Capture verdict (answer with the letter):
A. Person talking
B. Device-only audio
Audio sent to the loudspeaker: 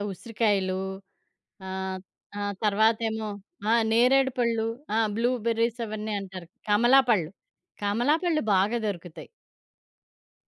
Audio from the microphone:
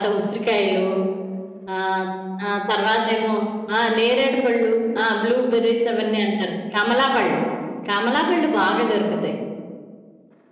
B